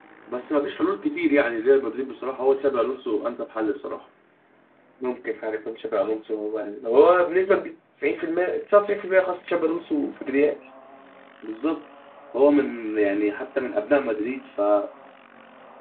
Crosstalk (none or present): none